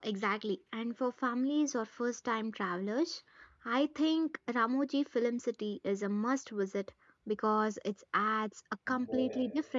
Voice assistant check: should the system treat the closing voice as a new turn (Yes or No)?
No